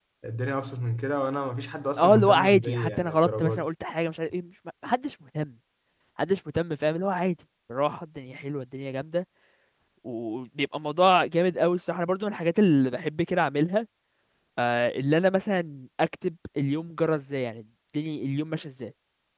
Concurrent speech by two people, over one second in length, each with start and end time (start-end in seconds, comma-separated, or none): 2.0-3.7